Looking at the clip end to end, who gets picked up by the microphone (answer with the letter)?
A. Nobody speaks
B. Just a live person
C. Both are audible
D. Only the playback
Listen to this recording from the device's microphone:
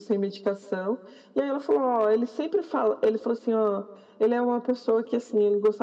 D